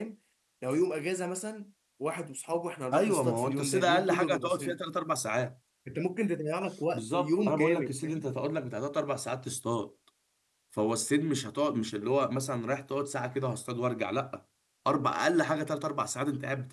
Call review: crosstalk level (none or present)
present